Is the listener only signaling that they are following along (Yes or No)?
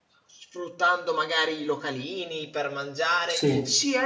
Yes